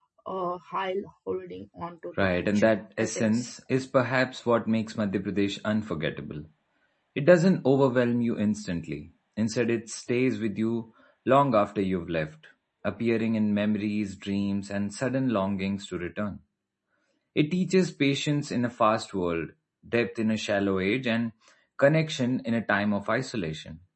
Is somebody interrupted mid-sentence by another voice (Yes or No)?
Yes